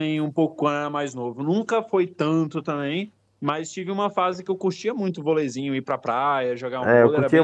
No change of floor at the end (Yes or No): No